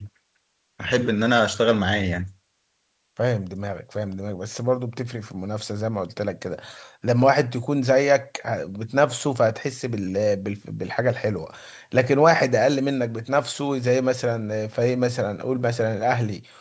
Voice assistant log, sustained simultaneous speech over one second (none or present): none